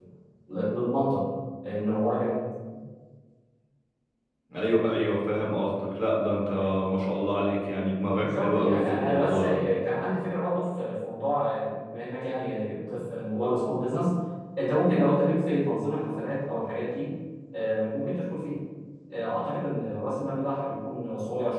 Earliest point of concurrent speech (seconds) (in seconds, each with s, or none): 8.1 s